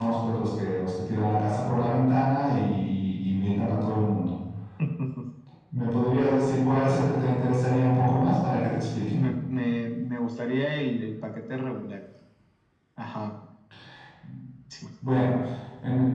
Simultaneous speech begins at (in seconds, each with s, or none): none